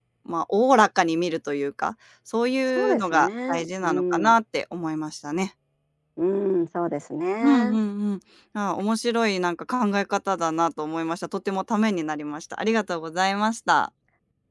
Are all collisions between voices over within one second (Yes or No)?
No